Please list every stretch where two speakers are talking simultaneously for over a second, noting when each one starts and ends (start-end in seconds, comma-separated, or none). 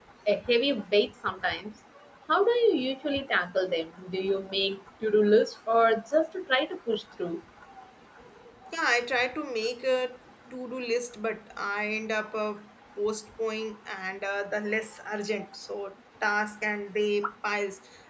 none